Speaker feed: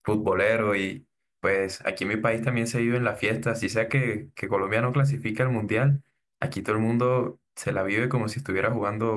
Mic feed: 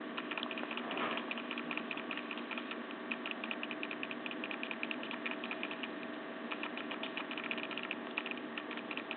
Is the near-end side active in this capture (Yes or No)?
No